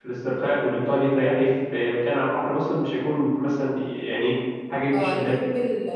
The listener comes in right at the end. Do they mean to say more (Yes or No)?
Yes